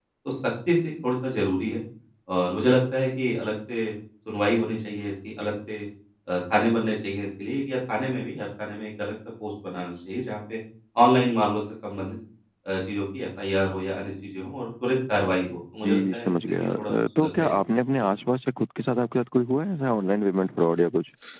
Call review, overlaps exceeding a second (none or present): present